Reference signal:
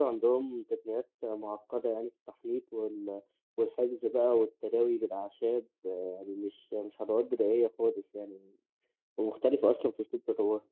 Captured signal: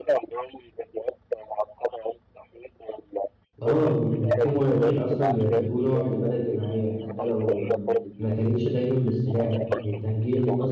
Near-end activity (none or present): present